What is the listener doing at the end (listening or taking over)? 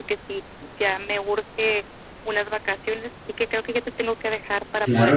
taking over